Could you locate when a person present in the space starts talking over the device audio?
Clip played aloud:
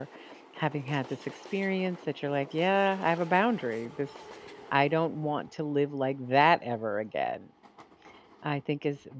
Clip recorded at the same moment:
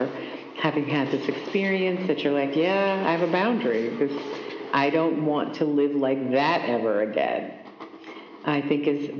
none

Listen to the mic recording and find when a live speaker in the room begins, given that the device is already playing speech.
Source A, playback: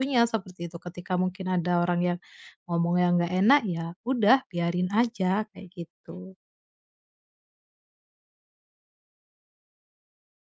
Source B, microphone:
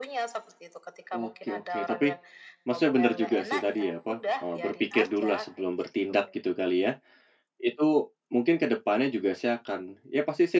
1.1 s

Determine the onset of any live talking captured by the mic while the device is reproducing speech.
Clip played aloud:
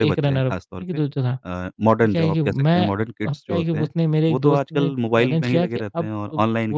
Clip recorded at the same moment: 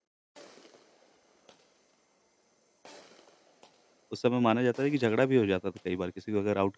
4.1 s

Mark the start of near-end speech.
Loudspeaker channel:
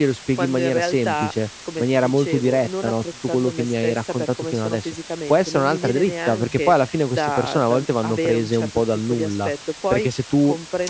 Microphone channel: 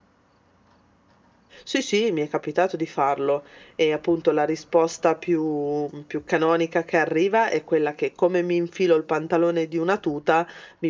1.6 s

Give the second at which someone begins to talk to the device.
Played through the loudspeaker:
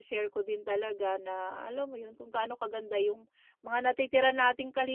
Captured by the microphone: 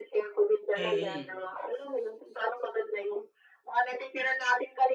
0.8 s

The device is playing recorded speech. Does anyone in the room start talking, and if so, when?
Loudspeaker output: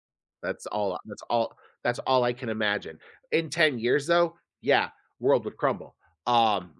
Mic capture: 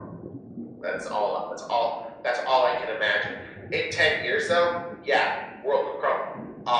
none

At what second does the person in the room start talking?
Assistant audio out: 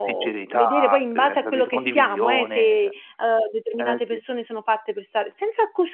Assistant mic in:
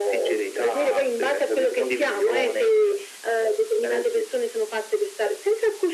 none

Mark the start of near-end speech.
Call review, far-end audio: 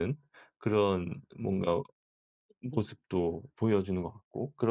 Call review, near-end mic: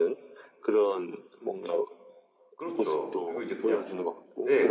2.6 s

